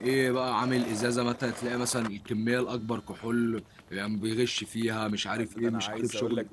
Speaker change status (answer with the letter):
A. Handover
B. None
A